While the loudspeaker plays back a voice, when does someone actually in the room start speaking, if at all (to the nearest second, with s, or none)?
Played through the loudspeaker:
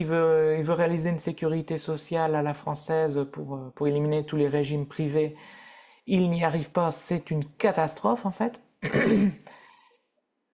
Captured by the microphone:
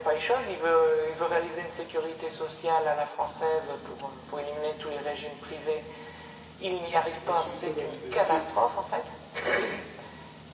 7 s